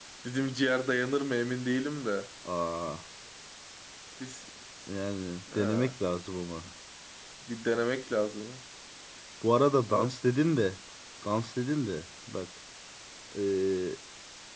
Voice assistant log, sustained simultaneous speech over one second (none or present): none